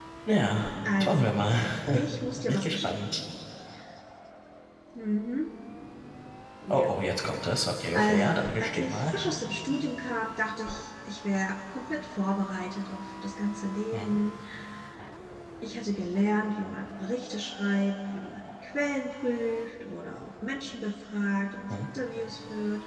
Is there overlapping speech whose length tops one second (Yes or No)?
Yes